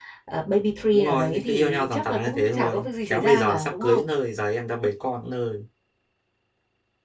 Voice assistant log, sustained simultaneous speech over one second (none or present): present